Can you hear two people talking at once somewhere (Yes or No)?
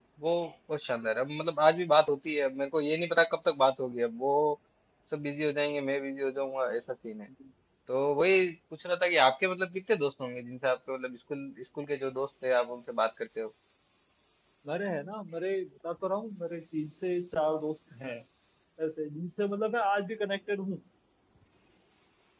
No